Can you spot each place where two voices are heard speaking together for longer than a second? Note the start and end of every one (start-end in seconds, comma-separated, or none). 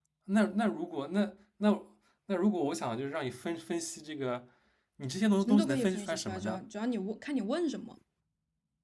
5.4-6.6